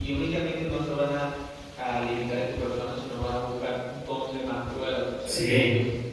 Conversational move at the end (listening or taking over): taking over